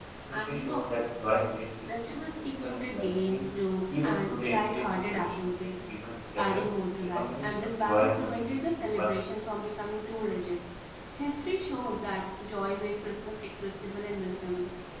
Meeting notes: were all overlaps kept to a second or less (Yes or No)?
No